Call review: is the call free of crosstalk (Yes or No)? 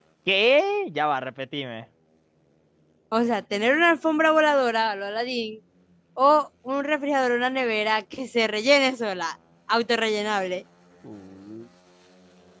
Yes